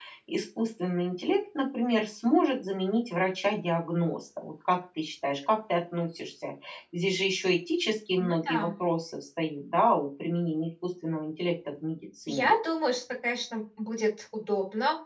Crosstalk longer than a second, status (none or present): none